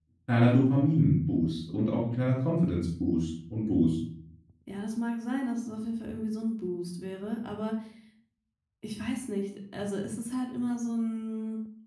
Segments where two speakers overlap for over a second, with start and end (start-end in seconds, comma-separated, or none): none